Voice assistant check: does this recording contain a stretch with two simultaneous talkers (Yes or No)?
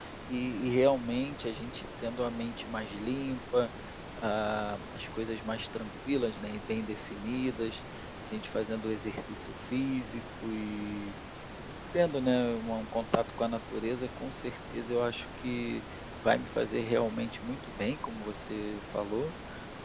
No